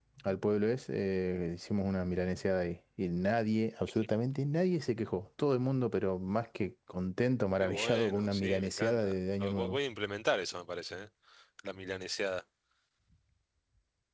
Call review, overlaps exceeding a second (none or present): present